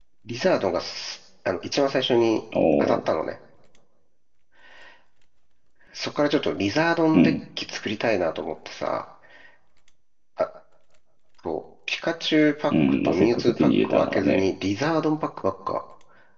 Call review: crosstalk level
present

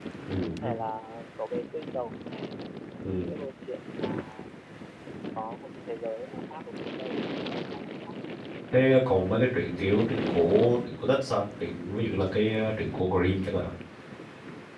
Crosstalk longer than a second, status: none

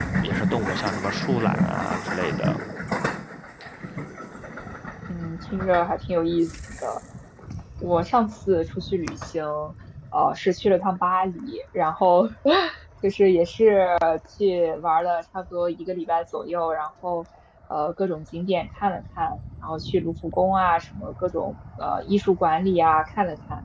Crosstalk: none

